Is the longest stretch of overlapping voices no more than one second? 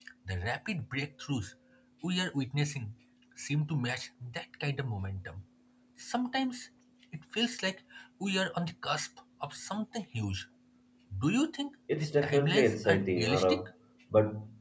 No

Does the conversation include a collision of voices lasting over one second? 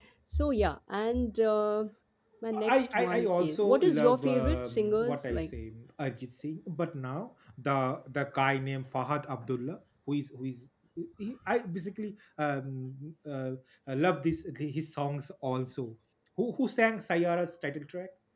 Yes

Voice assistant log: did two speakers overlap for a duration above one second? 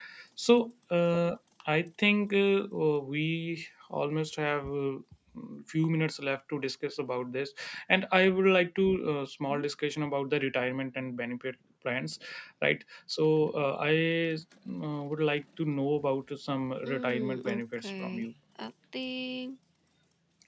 Yes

